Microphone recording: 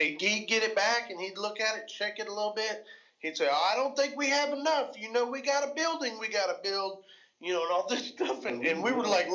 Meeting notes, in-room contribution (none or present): present